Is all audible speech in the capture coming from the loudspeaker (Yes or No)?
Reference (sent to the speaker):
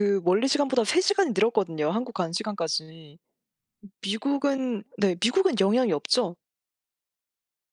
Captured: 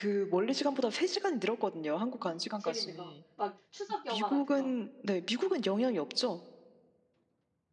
No